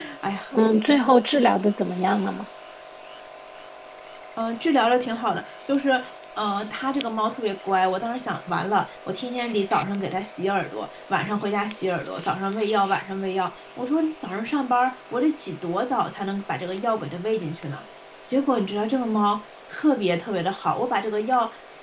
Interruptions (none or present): none